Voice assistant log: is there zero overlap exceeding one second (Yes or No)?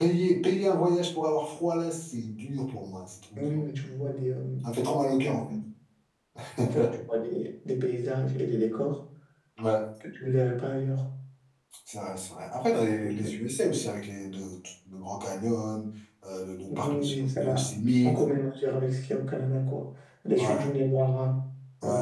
No